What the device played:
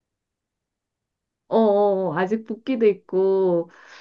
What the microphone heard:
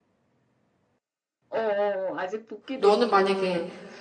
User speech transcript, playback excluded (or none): 너는 만약에